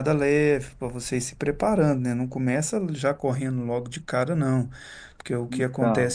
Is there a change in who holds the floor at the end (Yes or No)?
No